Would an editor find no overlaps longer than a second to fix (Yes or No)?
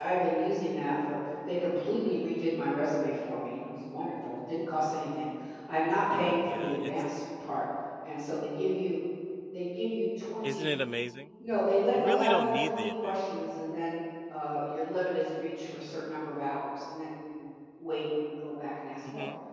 No